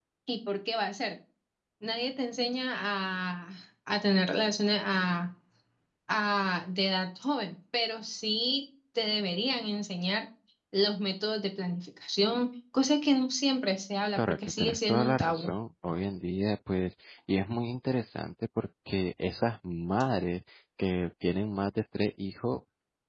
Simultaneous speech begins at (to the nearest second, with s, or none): 14 s